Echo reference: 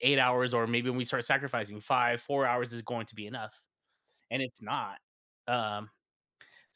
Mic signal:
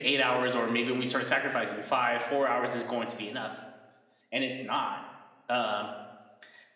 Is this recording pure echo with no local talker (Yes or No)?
Yes